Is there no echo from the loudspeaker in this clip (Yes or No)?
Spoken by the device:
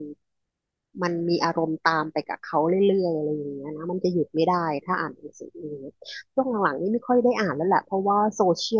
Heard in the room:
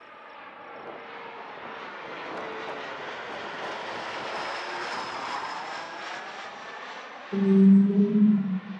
Yes